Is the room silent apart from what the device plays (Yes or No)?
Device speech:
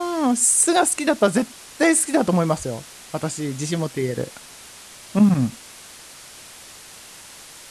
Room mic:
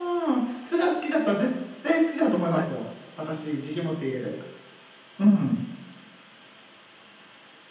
No